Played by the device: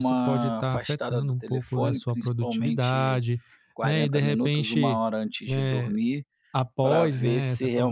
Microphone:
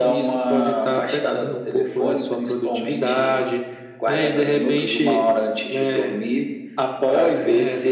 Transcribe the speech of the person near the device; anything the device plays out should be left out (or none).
none